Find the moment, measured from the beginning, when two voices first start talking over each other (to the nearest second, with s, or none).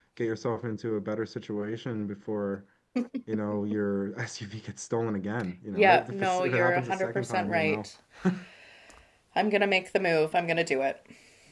6 s